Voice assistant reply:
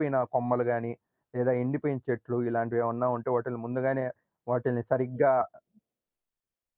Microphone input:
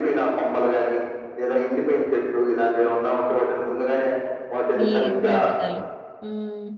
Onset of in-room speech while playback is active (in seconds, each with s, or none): 4.8 s